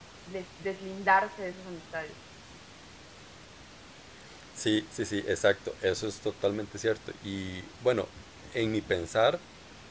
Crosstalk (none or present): none